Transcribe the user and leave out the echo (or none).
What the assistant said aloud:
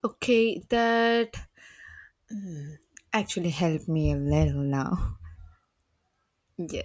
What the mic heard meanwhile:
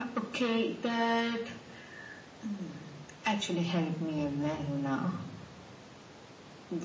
none